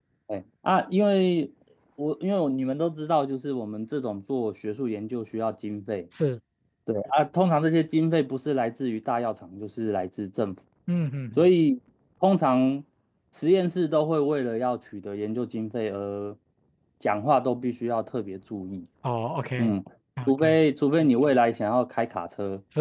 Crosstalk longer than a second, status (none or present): none